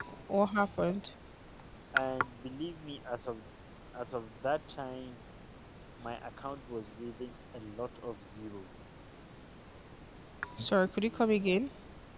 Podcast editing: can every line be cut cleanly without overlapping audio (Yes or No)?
Yes